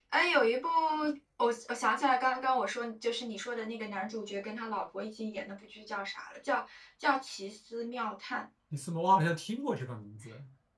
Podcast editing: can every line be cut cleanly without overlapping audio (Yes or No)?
Yes